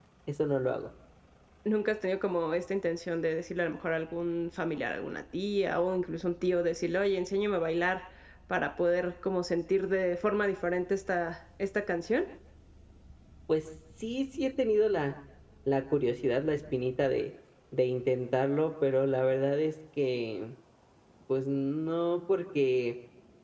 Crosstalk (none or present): none